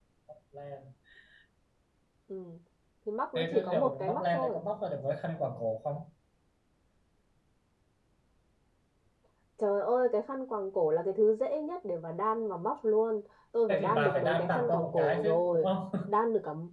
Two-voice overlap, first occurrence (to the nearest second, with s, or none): 3 s